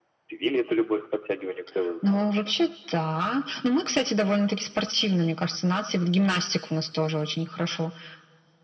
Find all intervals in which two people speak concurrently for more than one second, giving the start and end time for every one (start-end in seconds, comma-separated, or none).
none